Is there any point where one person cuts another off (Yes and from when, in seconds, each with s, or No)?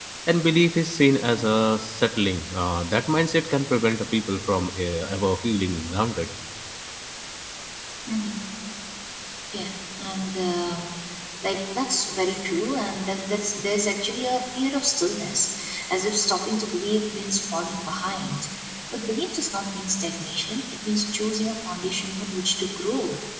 No